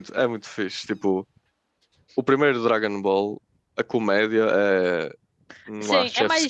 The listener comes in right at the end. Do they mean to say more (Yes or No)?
Yes